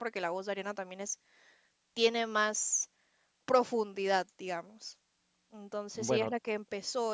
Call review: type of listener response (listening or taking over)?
listening